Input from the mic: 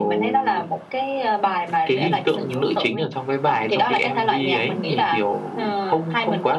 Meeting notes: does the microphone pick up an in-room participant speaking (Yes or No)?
No